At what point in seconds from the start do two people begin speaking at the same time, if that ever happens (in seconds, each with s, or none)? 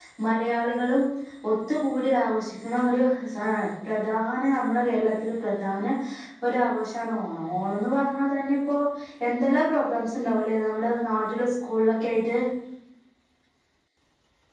none